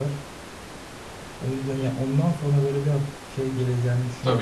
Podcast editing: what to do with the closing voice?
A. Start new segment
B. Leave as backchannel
A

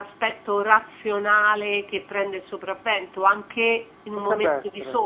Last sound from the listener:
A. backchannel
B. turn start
A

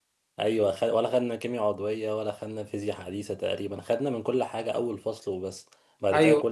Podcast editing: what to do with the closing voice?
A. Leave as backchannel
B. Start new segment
B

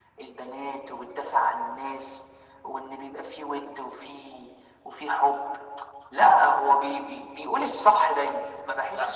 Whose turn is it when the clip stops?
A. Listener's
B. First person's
A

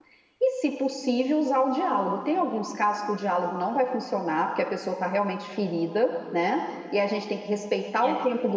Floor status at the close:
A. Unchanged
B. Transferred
A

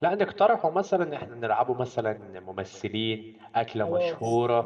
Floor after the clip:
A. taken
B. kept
A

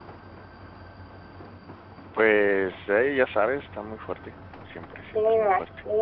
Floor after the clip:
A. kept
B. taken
B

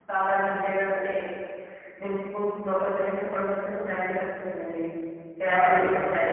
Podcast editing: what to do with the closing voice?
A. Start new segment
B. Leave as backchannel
A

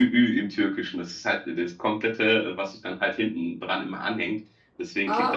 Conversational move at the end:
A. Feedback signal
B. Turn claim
A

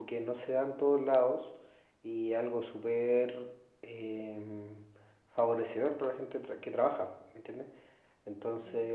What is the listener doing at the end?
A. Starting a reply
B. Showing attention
B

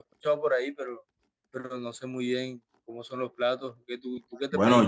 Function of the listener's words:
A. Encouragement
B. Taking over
B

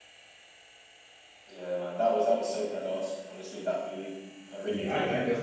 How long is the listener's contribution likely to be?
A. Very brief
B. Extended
B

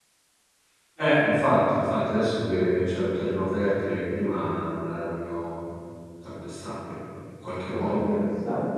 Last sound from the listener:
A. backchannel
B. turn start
B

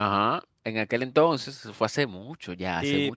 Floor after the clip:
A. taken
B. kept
A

